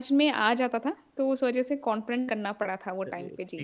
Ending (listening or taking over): taking over